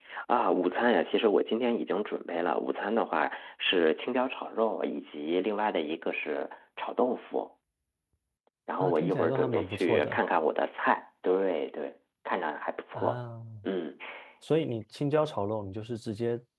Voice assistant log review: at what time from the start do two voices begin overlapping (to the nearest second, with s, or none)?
9 s